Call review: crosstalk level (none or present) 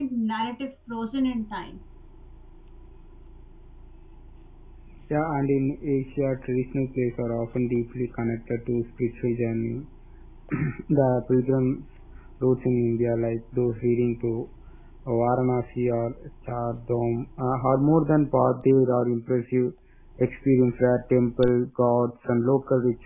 none